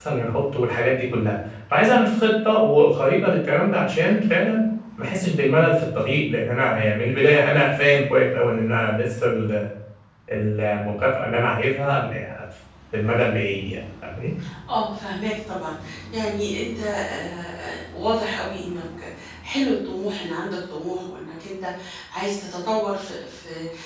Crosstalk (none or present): none